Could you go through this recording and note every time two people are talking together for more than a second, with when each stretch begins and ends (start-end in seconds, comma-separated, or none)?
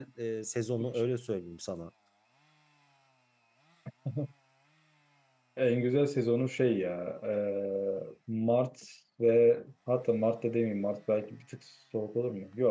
none